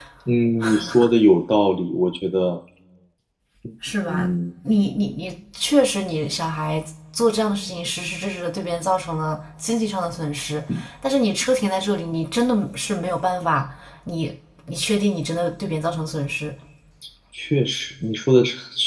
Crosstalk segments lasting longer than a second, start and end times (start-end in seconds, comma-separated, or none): none